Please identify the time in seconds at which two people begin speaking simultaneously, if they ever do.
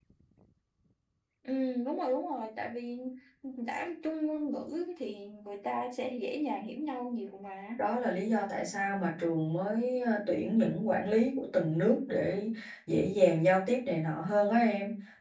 none

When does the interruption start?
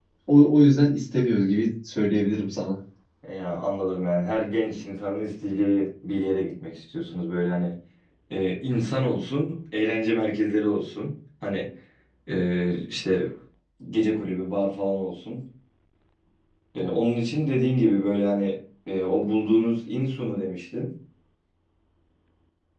none

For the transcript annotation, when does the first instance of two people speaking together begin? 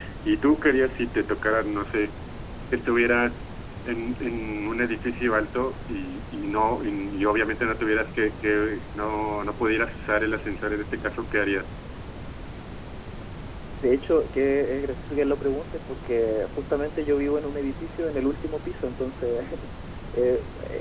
none

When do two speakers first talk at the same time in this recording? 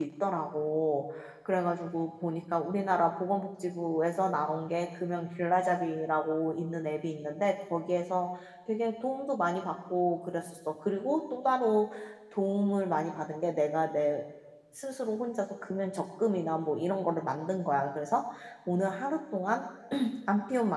none

